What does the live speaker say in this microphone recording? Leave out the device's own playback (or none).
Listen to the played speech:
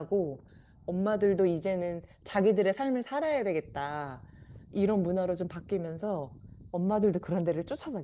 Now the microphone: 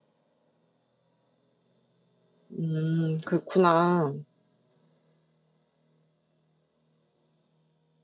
음, 그렇구나.